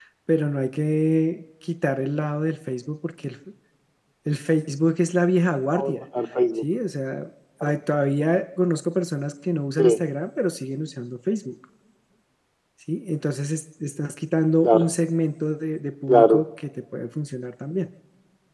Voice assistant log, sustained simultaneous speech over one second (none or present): none